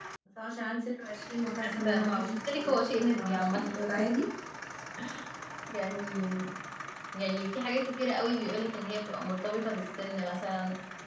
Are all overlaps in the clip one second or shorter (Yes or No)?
No